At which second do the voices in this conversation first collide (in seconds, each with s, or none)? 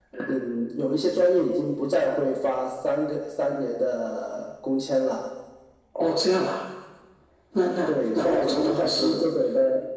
7.9 s